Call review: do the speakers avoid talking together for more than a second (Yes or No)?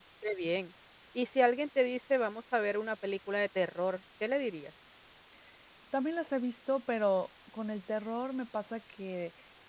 Yes